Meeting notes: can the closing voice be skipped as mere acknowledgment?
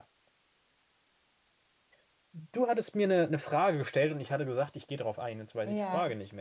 No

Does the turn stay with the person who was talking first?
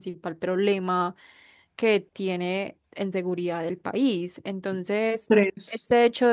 Yes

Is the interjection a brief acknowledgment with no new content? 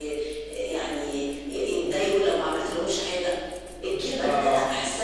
Yes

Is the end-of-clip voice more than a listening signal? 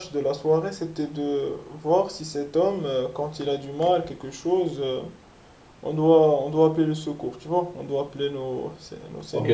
Yes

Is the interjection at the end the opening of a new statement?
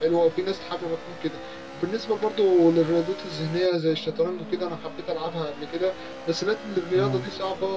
No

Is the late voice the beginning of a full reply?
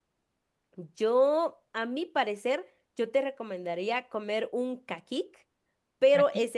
No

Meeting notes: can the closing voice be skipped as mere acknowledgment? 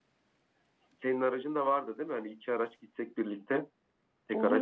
No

